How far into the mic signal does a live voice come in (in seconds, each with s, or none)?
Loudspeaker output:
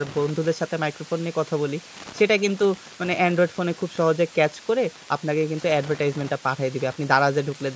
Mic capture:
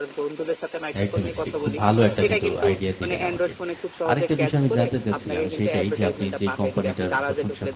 1.0 s